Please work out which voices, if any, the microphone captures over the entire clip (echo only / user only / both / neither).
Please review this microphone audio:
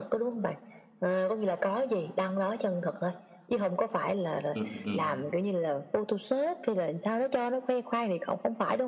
both